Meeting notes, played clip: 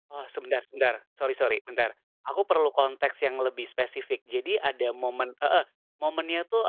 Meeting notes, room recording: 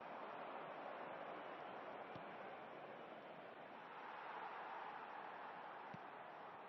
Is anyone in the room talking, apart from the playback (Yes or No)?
No